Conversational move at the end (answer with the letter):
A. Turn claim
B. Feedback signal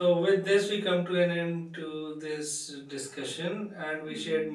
B